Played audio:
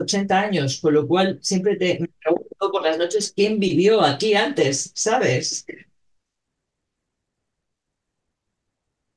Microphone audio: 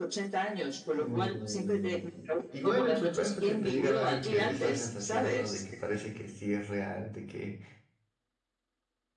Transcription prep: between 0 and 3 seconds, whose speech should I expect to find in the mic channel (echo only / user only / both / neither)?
both